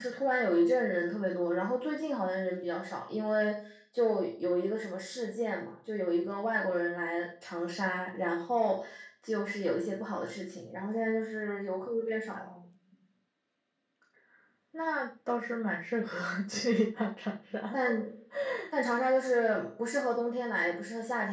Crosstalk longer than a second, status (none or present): none